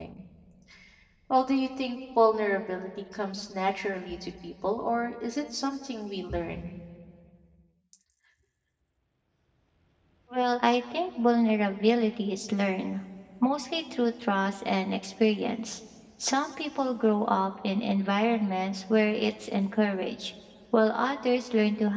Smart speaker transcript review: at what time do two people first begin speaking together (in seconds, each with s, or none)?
none